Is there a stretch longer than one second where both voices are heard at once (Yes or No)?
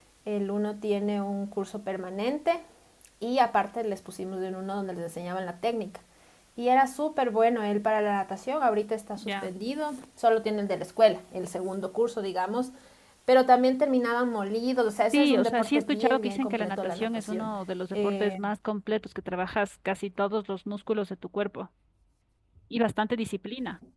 Yes